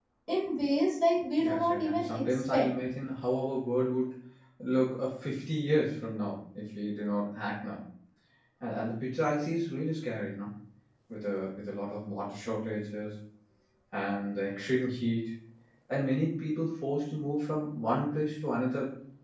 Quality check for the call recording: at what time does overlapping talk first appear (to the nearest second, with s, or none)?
1 s